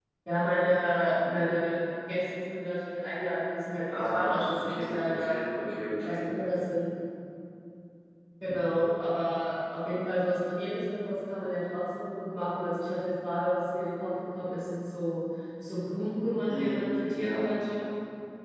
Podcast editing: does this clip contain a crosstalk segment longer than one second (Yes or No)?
Yes